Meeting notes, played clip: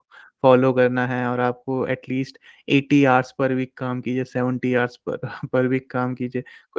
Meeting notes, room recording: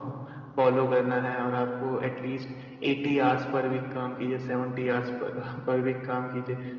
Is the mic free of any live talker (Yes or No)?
Yes